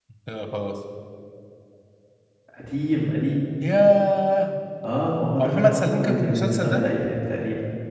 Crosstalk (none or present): present